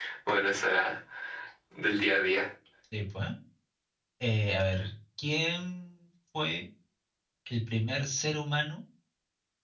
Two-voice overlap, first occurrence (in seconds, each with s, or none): none